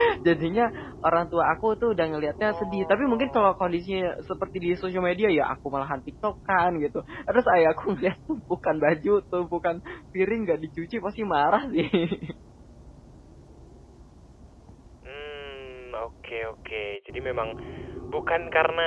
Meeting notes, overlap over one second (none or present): present